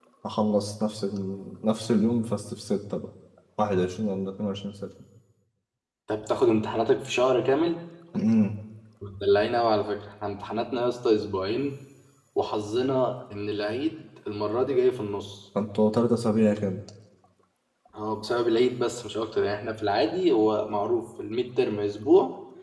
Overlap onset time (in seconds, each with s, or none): none